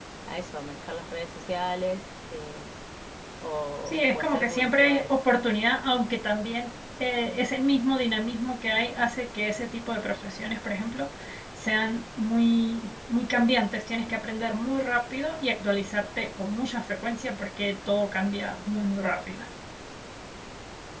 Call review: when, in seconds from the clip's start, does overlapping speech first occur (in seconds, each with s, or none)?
3.9 s